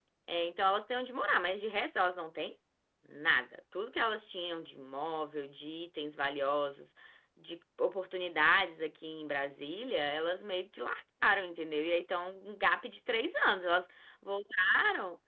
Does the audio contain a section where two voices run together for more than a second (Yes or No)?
No